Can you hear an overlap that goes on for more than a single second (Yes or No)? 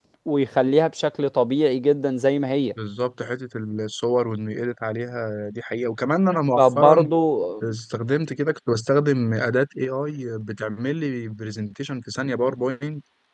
No